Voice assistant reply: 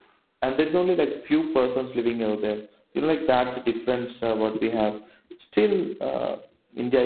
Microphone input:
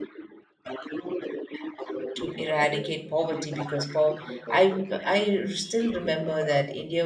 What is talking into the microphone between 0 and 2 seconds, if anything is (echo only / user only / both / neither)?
echo only